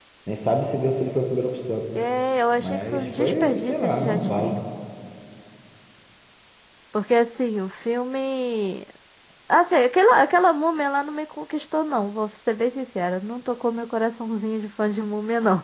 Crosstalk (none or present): present